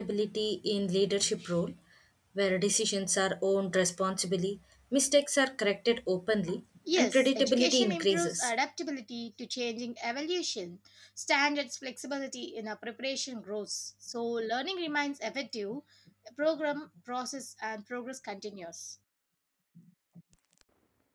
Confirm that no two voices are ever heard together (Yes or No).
No